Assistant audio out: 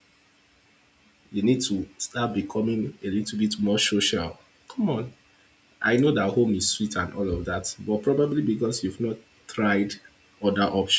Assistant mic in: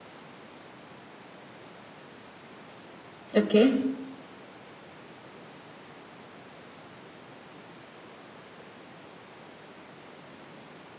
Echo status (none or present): none